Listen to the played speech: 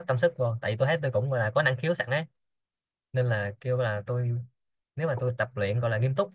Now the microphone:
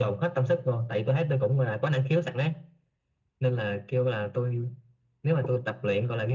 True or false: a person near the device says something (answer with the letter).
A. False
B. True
A